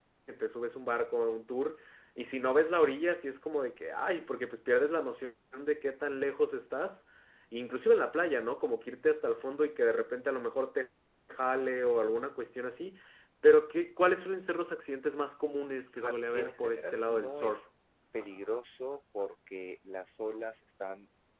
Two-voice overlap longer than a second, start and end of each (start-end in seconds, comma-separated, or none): 16.0-17.6